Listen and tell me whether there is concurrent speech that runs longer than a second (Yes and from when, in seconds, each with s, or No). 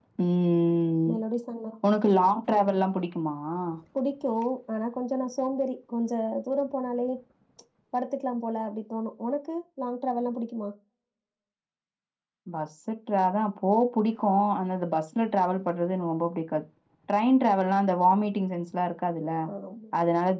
No